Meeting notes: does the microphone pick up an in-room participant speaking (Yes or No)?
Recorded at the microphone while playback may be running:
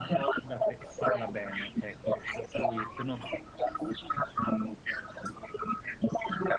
Yes